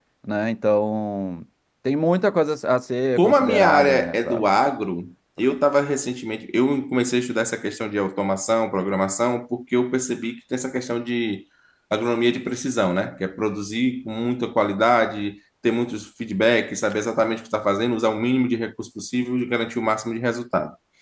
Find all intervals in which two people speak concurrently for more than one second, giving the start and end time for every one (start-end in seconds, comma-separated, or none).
3.2-4.4